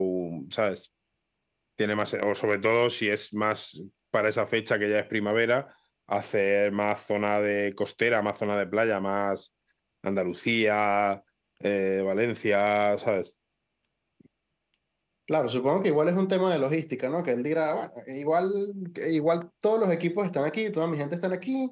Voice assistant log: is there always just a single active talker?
Yes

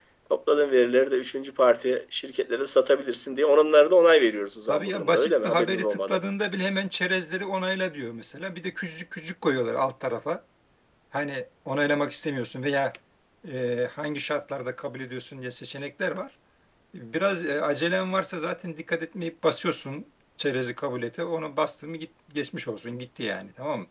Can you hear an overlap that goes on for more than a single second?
Yes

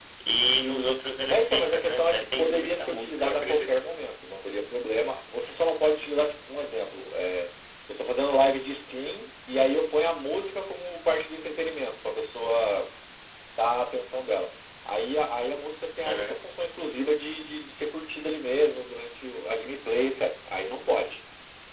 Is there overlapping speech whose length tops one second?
Yes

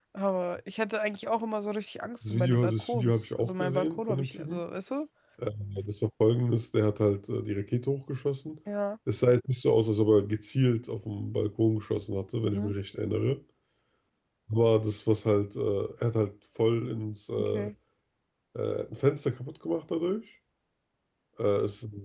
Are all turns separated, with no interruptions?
No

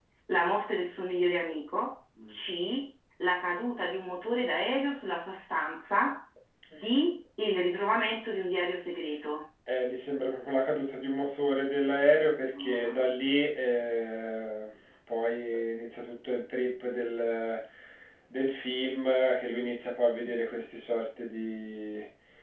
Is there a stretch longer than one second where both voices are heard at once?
No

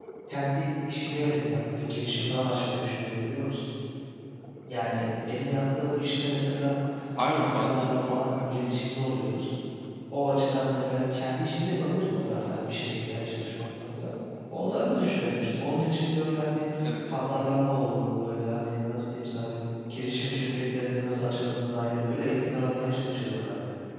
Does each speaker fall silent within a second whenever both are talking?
No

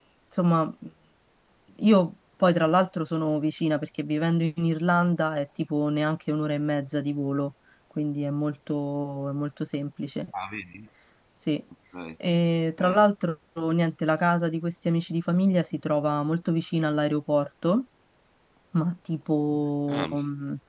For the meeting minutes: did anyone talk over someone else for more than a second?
No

